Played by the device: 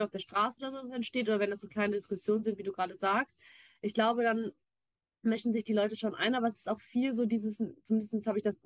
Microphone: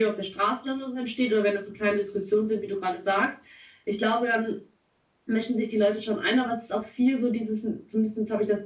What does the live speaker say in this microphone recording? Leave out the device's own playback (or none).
none